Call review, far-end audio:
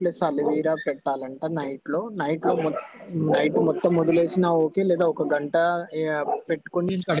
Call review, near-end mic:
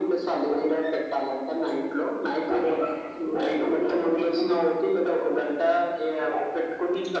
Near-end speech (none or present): none